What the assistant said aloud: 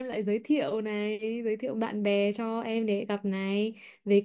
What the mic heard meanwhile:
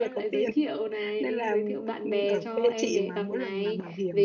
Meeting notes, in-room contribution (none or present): present